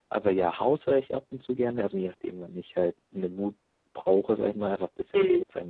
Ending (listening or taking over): listening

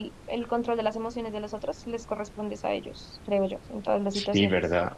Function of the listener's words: taking over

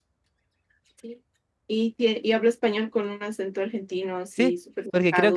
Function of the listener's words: taking over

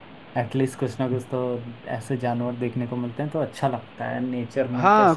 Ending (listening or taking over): taking over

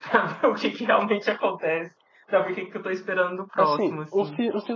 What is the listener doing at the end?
taking over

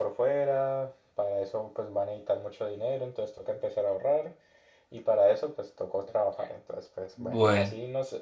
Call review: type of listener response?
listening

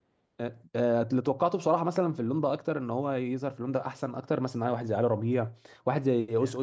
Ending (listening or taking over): taking over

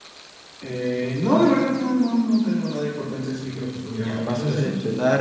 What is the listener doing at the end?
taking over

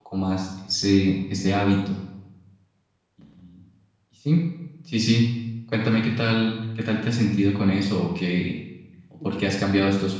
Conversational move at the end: listening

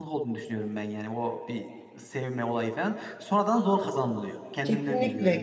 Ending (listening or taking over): taking over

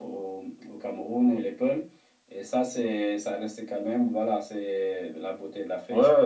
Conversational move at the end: taking over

